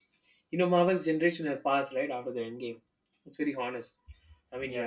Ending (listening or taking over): listening